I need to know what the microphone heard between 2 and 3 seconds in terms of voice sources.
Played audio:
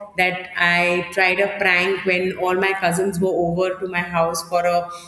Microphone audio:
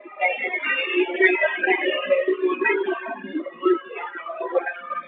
echo only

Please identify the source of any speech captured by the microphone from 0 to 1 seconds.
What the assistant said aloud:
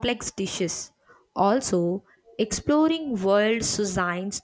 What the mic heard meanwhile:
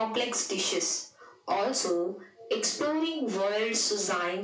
echo only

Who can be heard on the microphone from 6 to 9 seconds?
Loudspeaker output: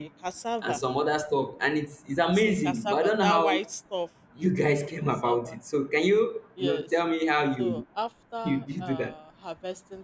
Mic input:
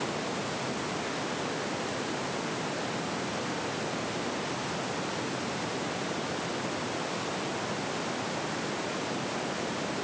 neither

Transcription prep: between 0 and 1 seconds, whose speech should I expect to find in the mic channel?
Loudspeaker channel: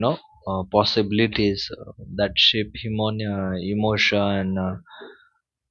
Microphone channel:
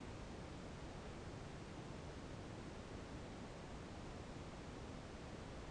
neither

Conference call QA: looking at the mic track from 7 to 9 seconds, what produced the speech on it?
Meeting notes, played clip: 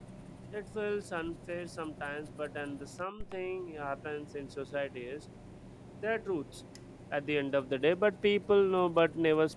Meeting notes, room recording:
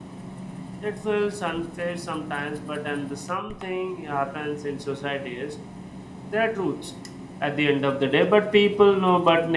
echo only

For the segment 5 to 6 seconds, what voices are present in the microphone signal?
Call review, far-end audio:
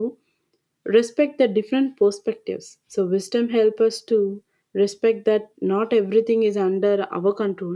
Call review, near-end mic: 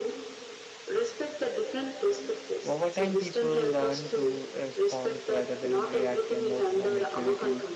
both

